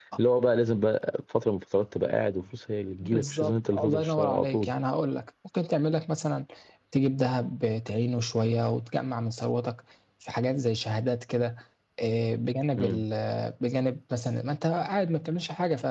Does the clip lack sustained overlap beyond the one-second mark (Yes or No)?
No